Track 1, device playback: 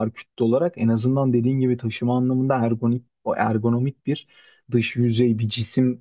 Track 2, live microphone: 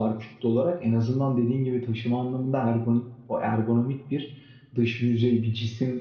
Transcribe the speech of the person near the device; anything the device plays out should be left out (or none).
none